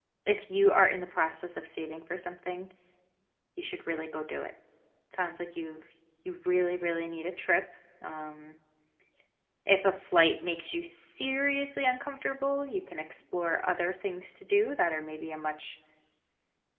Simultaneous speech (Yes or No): No